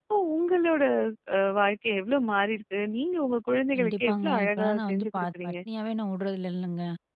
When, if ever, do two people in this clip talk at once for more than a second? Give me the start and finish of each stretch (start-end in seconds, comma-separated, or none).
3.8-5.5